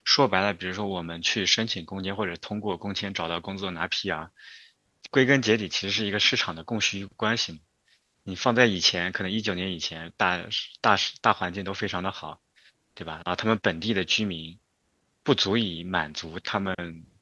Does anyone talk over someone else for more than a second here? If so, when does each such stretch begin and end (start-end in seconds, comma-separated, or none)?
none